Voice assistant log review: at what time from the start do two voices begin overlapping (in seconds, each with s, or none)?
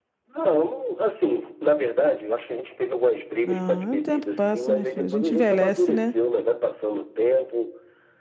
3.4 s